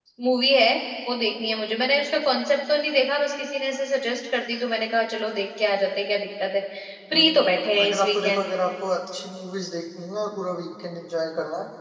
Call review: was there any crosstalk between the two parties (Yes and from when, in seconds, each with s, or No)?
Yes, from 7.1 s